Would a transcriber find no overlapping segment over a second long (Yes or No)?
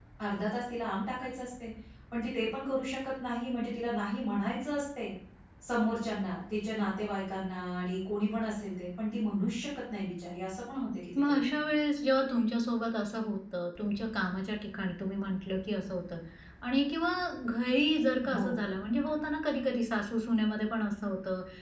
Yes